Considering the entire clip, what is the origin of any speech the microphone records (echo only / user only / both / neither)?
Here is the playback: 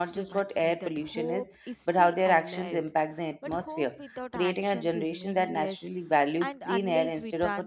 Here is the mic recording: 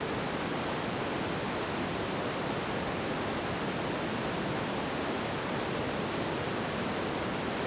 neither